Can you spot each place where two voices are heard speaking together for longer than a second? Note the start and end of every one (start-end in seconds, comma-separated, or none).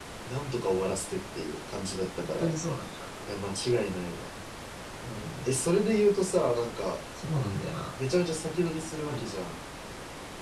none